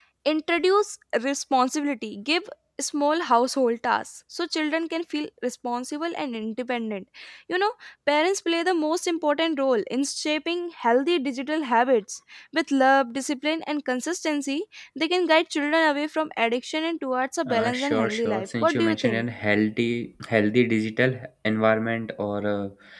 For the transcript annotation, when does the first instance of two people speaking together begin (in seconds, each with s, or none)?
17.5 s